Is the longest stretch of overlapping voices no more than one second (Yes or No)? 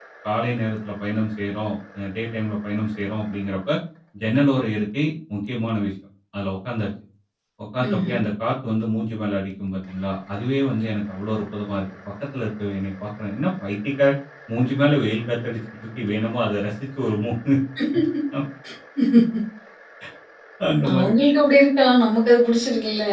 Yes